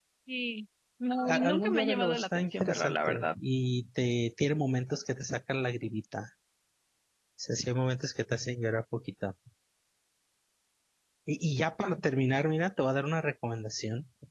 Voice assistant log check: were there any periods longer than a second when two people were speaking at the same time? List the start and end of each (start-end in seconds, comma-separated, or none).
1.3-3.3